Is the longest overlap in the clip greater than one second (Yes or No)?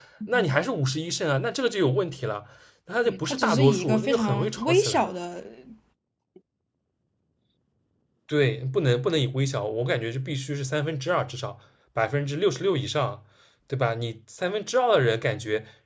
Yes